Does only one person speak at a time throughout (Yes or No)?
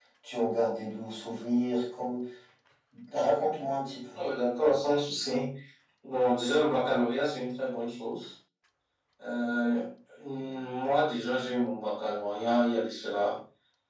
Yes